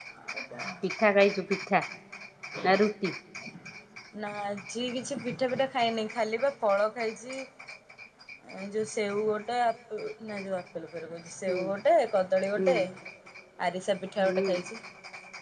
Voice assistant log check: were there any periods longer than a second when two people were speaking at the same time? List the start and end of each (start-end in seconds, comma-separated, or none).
none